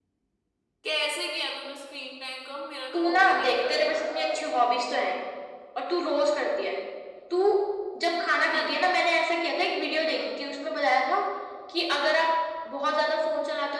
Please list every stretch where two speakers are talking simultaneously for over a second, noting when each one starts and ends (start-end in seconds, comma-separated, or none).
2.9-4.5